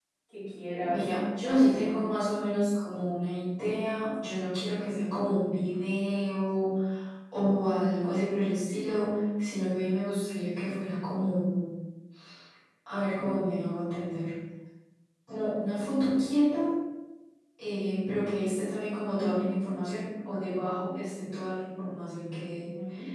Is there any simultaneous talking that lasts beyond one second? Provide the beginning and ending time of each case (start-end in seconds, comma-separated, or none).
0.9-2.2